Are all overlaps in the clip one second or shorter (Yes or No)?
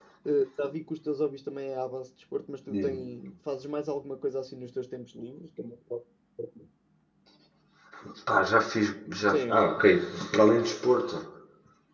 Yes